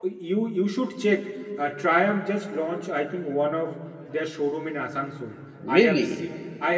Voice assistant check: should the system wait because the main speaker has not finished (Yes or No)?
Yes